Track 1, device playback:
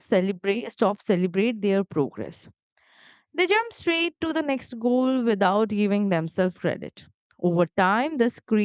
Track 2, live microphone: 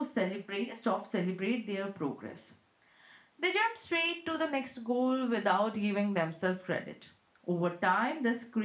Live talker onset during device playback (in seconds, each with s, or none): none